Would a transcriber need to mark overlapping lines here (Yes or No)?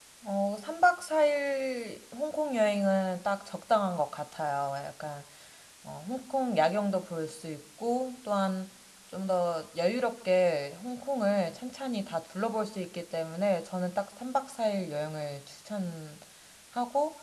No